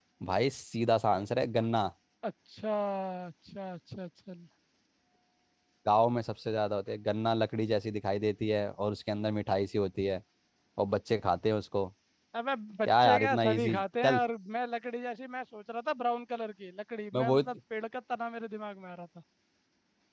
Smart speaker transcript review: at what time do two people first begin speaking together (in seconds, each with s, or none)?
12.9 s